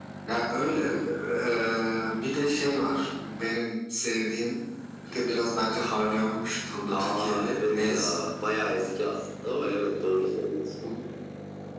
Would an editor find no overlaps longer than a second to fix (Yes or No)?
No